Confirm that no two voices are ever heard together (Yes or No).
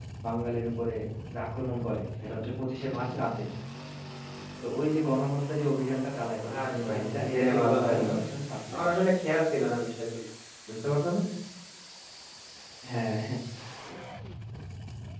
No